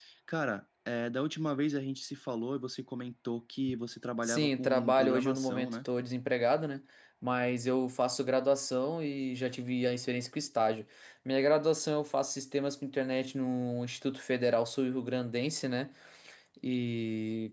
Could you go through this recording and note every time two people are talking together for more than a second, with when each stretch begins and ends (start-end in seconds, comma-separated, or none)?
4.2-5.8